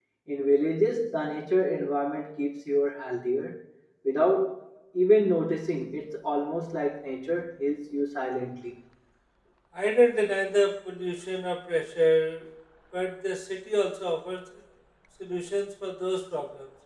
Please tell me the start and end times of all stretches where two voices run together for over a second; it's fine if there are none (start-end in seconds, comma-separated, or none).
none